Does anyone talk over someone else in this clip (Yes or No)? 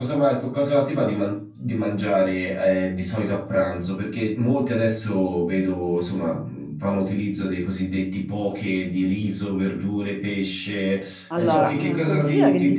Yes